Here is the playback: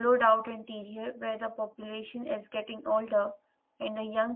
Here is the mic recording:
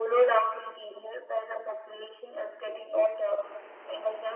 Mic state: echo only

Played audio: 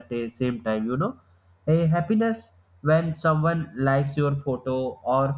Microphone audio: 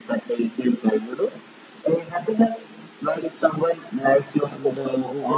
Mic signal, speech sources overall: both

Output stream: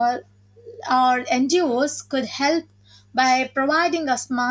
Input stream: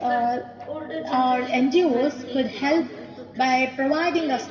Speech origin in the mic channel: both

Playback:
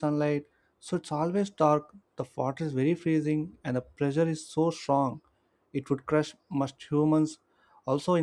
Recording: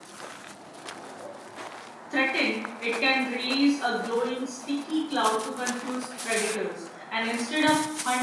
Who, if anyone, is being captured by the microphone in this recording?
user only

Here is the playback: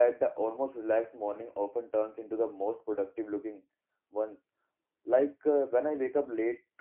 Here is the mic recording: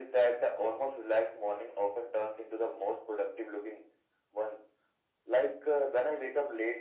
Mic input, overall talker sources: echo only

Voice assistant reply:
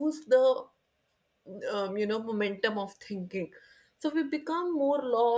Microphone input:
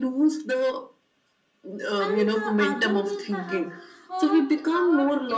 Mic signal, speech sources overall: both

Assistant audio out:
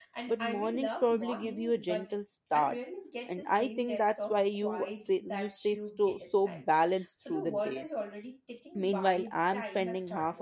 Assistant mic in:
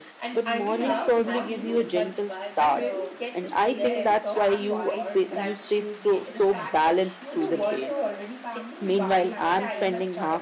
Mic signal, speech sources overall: both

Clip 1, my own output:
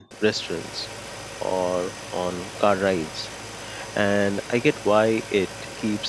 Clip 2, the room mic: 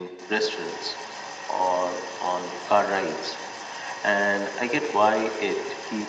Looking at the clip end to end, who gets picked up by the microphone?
echo only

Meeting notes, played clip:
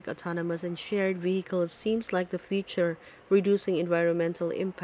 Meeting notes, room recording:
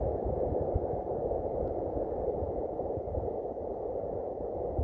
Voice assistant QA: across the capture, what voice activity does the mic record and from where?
neither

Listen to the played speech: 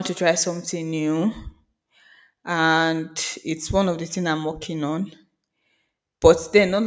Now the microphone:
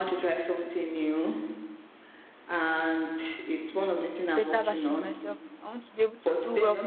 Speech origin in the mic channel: both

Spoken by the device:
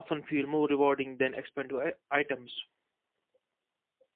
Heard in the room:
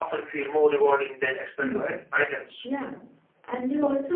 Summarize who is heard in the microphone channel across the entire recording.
both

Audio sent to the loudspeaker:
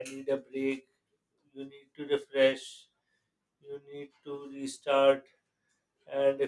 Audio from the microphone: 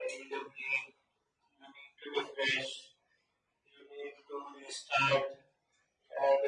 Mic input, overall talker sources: echo only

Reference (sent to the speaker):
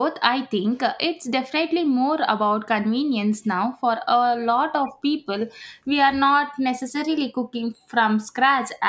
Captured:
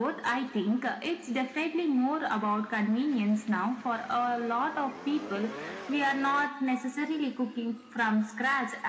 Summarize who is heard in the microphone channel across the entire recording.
echo only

